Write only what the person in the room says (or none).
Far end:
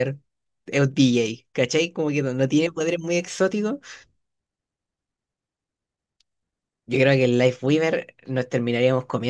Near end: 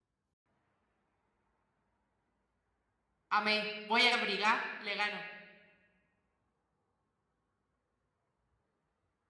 amé, voy a abrigar, le gano.